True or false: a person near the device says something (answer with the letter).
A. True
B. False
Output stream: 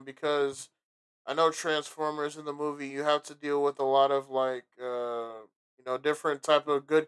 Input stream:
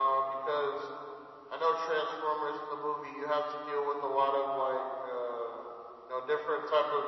B